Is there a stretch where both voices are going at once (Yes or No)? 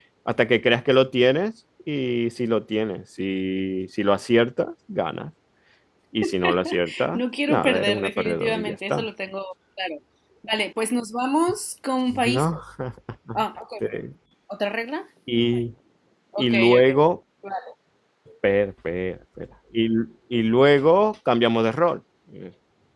Yes